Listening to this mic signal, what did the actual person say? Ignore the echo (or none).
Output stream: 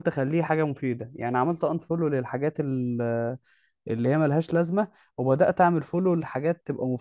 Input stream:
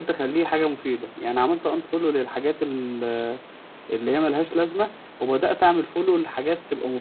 none